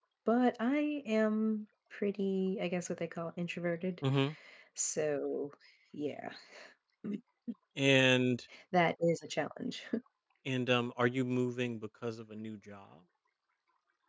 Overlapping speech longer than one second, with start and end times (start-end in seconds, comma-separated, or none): none